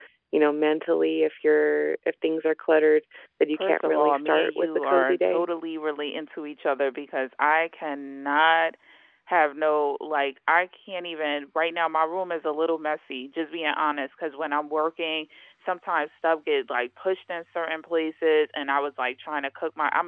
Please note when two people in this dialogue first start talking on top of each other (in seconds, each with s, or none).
3.5 s